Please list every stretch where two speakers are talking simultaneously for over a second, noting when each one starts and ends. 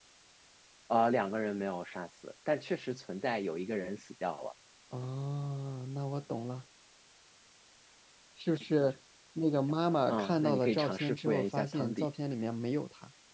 10.1-12.1

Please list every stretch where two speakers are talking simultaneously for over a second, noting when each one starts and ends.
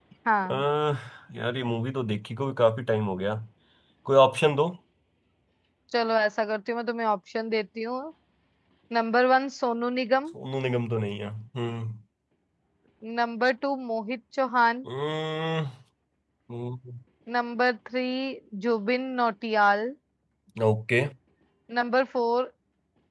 none

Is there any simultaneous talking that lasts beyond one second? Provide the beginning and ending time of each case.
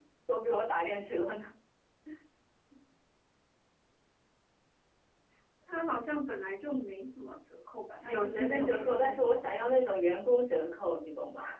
8.0-9.5

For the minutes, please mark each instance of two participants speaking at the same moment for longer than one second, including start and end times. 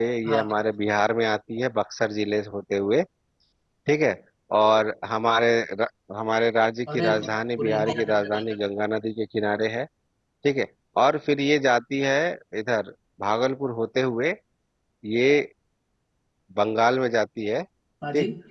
6.9-8.4

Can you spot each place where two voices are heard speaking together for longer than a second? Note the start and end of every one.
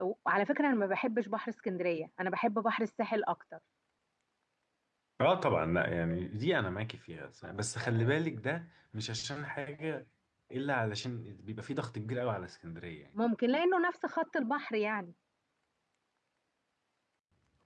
none

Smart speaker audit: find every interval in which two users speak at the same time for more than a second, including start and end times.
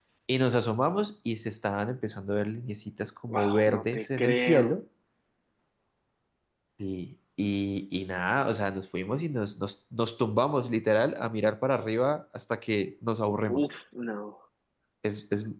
3.4-4.7

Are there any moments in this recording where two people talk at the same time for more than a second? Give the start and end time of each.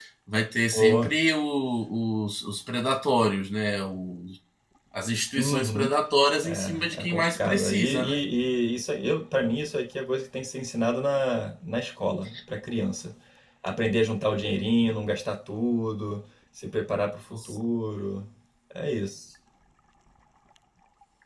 6.4-8.2

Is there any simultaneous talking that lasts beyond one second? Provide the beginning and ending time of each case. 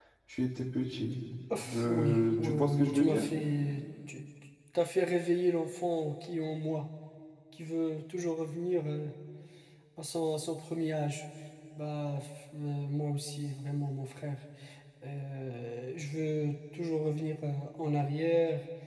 1.6-3.3

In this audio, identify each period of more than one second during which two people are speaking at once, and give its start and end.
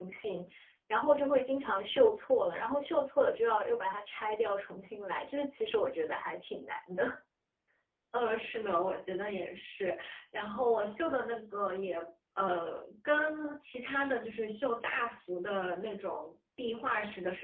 none

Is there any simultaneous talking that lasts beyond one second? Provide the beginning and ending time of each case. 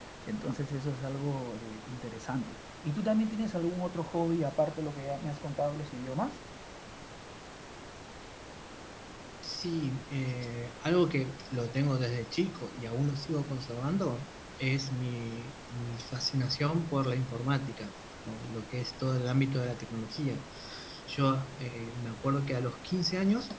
none

